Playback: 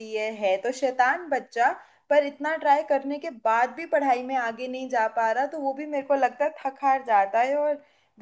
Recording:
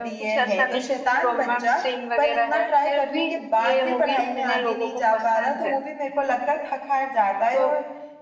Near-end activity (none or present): present